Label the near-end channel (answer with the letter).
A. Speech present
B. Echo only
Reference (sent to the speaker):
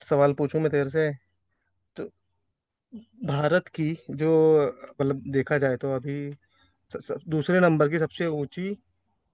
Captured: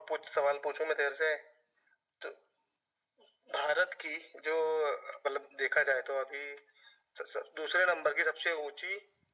B